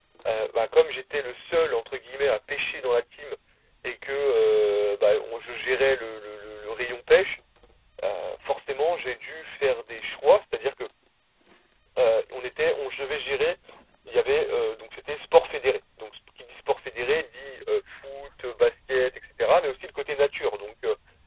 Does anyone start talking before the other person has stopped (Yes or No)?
No